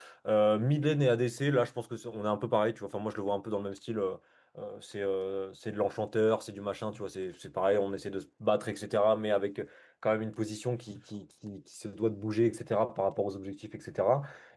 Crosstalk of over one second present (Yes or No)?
No